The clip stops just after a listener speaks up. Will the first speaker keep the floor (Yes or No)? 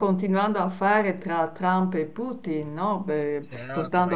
No